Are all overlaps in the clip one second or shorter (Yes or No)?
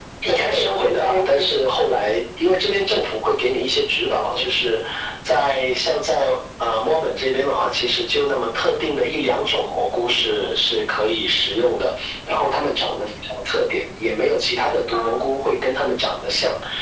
No